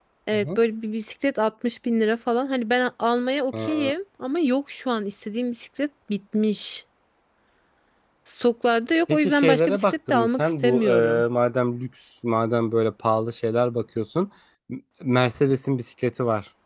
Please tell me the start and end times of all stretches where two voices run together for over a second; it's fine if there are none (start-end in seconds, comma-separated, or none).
9.1-11.2